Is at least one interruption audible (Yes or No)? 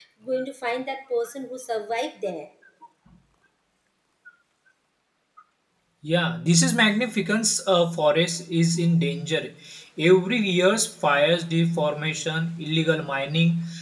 No